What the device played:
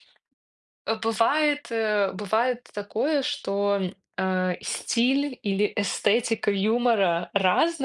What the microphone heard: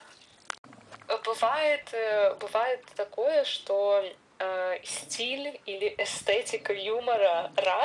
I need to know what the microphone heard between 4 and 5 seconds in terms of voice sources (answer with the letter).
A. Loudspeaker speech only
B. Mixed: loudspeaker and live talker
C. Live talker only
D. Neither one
A